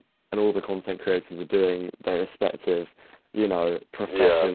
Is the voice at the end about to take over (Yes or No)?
No